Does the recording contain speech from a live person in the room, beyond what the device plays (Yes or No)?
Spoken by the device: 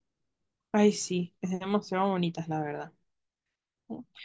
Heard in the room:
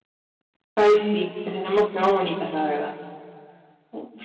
No